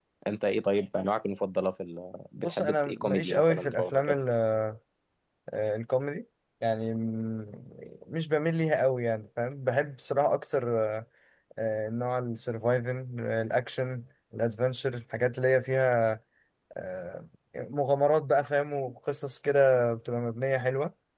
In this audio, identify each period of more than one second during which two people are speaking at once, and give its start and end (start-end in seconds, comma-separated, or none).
2.4-4.2